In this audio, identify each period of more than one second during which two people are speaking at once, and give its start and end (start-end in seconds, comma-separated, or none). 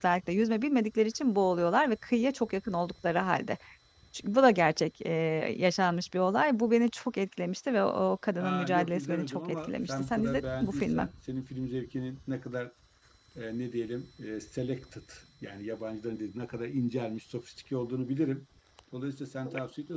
8.4-11.1